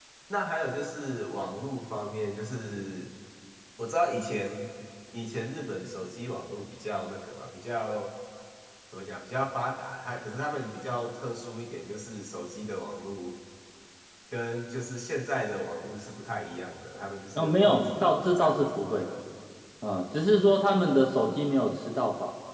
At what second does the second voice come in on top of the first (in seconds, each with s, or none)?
17.4 s